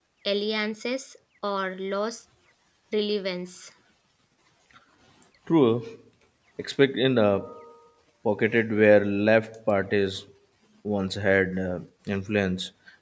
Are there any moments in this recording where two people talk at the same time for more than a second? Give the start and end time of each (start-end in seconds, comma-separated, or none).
none